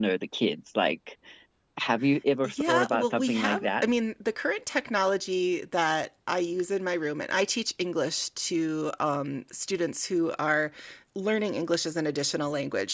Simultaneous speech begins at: 2.4 s

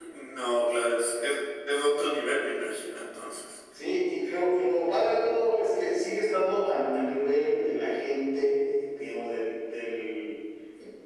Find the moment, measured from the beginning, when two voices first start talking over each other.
none

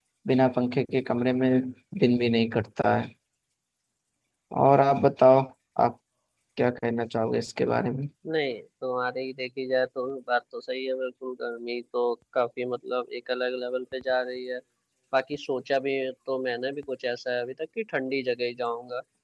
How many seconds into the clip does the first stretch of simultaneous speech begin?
none

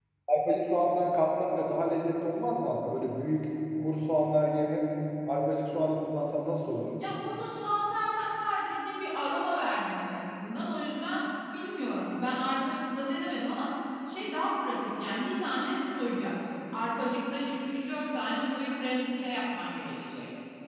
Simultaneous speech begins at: none

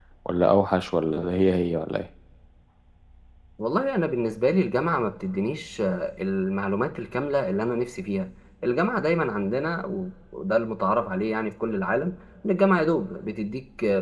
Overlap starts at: none

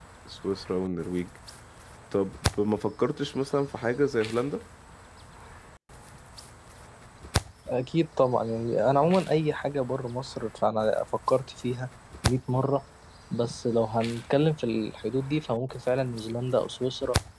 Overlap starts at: none

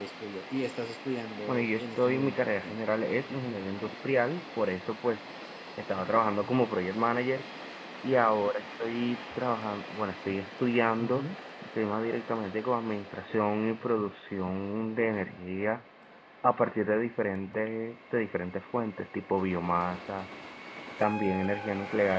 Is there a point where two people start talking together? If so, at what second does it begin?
1.5 s

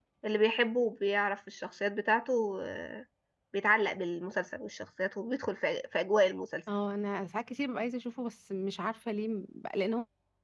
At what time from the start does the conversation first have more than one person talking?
none

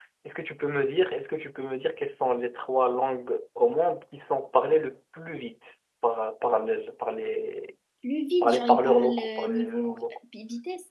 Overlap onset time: 8.4 s

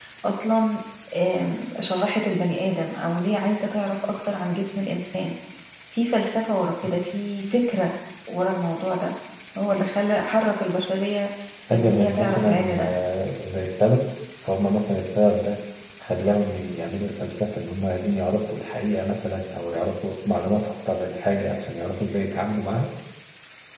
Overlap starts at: 11.7 s

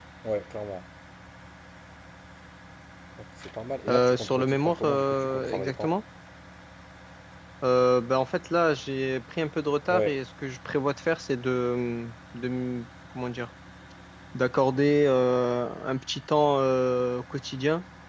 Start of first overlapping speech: 3.9 s

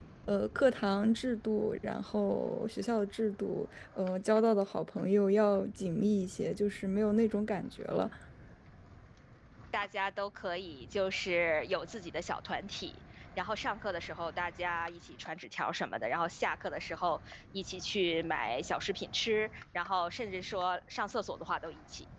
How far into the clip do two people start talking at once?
none

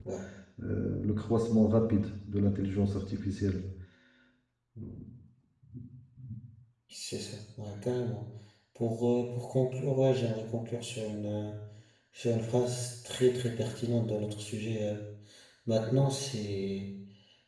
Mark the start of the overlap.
none

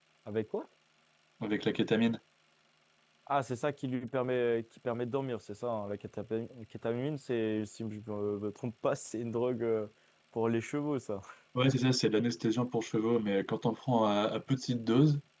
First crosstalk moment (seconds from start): none

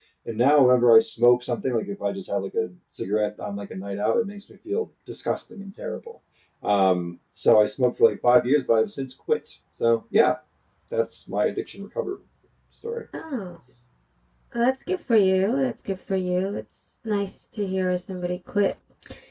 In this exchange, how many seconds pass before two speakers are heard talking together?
none

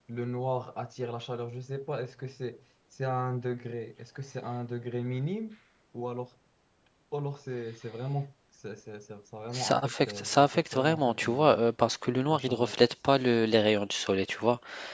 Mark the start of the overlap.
9.5 s

